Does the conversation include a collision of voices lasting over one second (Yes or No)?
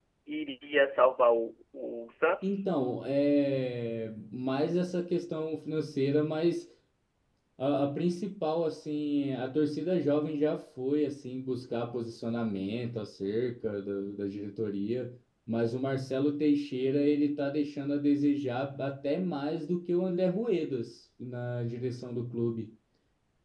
No